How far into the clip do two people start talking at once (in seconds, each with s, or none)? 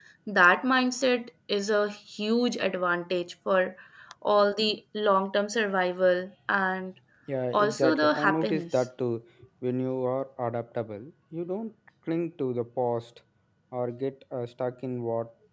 7.5 s